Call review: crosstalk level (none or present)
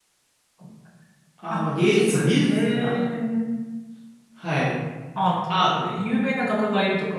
present